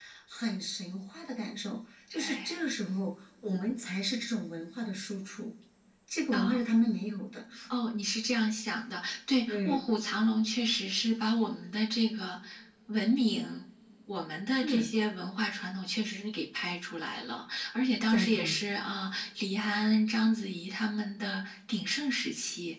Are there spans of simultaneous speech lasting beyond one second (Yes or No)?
No